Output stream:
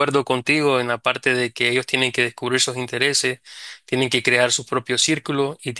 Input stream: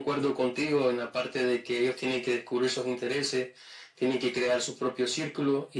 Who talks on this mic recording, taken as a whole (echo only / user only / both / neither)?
echo only